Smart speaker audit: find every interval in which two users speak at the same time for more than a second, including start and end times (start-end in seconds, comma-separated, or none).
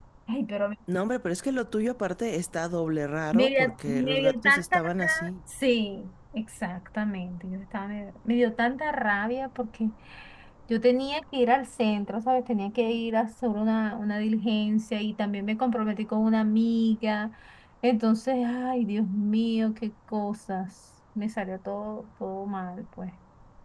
3.3-5.3